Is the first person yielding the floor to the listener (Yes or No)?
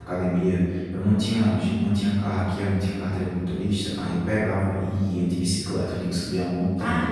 No